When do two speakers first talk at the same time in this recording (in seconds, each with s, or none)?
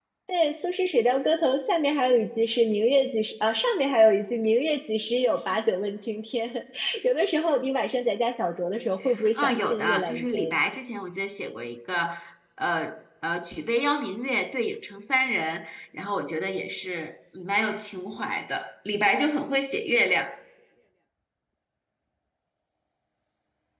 9.4 s